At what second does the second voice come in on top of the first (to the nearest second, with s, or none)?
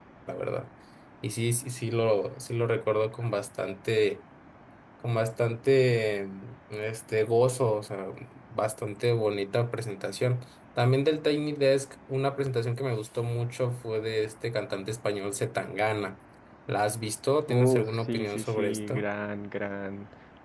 17 s